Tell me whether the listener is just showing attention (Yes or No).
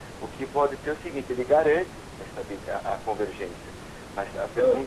Yes